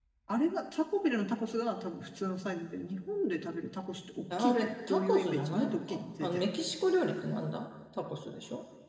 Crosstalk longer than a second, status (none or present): present